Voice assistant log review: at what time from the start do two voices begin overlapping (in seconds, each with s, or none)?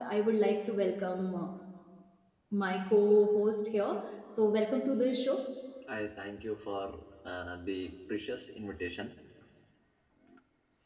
none